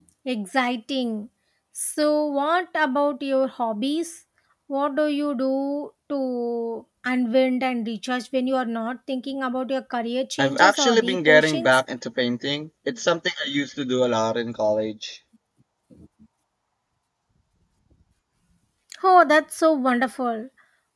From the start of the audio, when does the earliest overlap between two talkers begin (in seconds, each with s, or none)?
10.4 s